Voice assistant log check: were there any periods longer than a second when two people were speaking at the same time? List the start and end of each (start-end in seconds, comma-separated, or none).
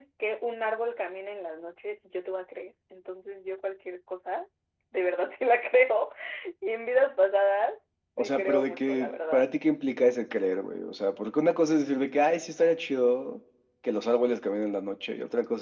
8.2-9.5